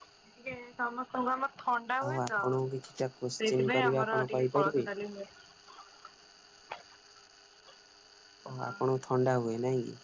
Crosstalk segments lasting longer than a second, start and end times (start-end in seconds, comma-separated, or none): 3.4-4.8